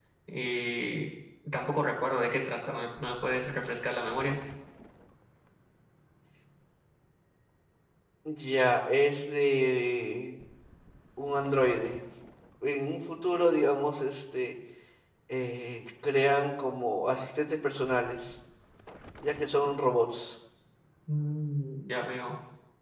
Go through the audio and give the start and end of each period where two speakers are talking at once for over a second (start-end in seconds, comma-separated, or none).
none